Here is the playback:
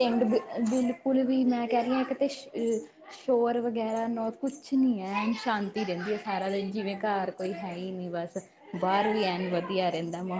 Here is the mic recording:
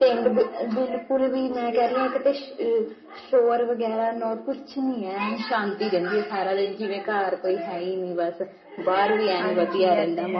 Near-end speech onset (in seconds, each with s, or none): 9.4 s